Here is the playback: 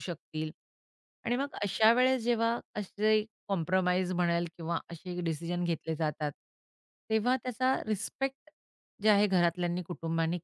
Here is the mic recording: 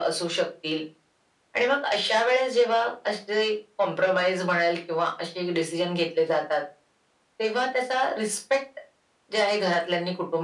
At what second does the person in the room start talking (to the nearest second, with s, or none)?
none